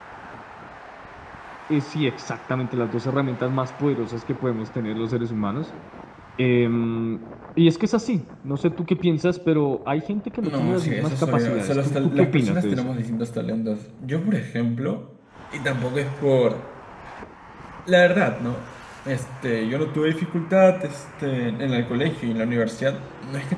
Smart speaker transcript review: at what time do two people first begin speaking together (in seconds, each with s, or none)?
10.4 s